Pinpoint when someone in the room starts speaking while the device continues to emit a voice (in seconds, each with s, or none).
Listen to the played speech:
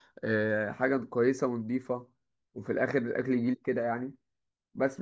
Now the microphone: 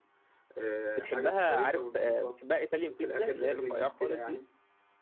0.9 s